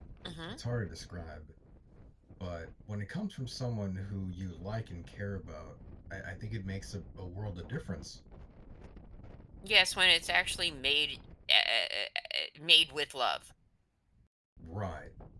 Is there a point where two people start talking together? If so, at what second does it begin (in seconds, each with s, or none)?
none